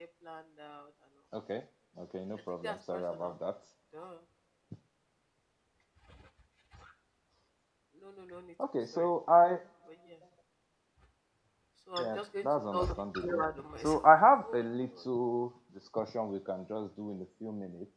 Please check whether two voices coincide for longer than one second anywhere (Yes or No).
Yes